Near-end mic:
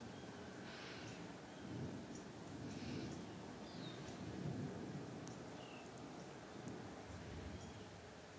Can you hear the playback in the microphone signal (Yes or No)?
No